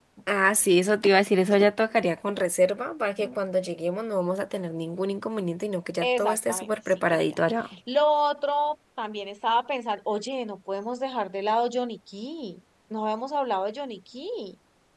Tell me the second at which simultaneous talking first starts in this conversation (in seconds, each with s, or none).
6.0 s